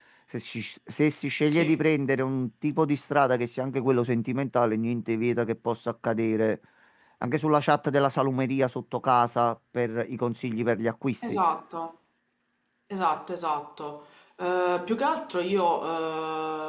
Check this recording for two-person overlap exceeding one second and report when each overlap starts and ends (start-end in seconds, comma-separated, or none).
none